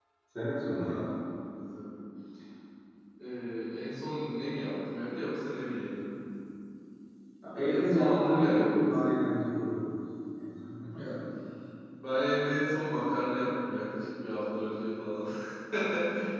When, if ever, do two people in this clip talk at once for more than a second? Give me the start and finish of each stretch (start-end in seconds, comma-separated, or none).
7.6-9.0